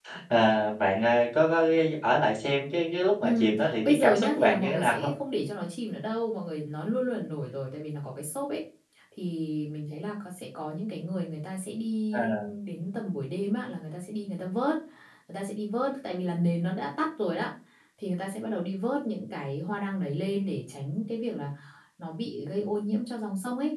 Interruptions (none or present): present